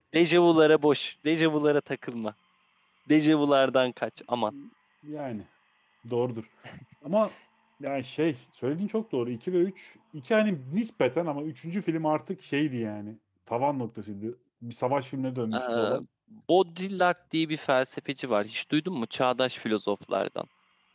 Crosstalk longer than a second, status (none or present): none